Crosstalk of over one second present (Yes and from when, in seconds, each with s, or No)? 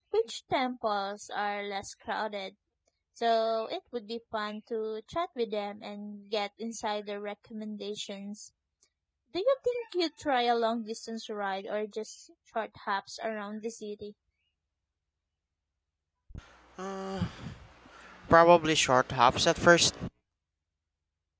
No